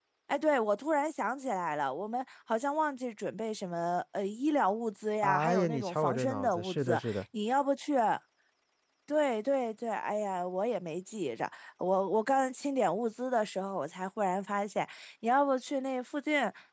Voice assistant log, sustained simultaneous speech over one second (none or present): present